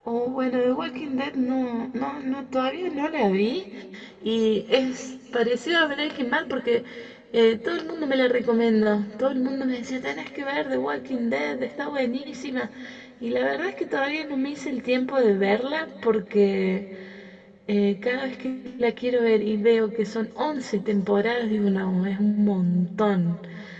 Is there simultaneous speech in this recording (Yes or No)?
No